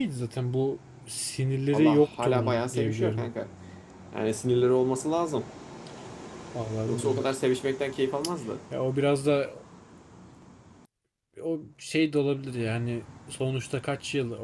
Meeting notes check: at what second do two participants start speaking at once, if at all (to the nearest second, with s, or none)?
2 s